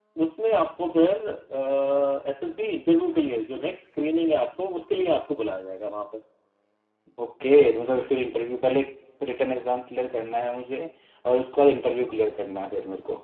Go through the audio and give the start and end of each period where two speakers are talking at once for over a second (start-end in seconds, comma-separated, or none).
none